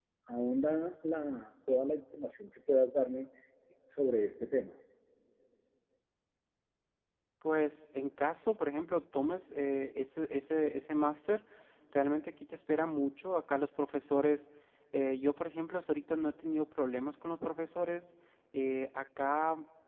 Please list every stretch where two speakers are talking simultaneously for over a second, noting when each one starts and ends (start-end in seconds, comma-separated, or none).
none